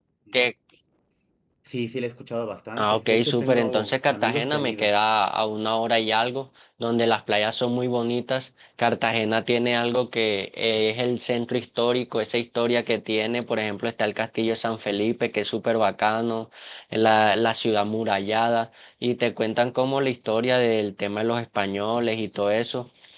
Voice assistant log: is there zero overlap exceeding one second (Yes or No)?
No